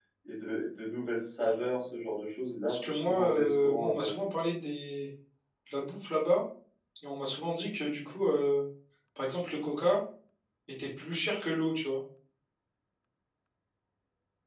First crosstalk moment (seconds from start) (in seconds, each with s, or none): 2.7 s